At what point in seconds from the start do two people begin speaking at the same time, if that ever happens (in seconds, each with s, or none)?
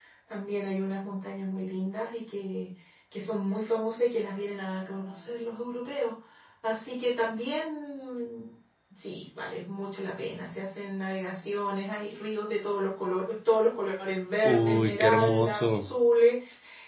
14.4 s